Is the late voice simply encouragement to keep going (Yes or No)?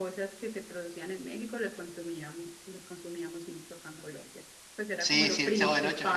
No